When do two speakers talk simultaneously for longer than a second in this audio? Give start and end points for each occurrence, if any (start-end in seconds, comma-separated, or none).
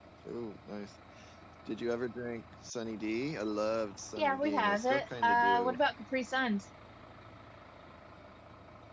4.2-5.8